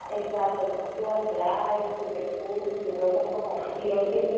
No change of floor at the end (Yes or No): Yes